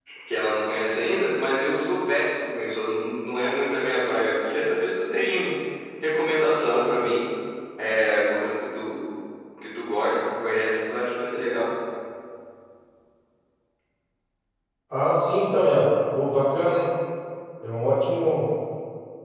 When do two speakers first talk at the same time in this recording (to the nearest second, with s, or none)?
none